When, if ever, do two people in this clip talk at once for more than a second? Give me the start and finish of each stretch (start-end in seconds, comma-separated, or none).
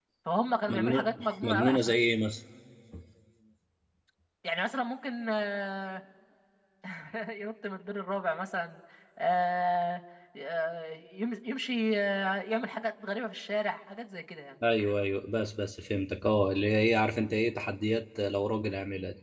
0.7-1.9